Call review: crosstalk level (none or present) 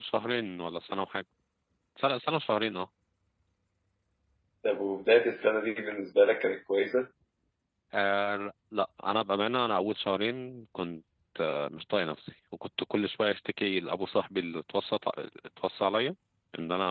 none